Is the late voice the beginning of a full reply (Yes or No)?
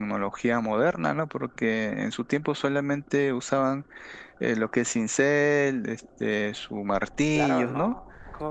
Yes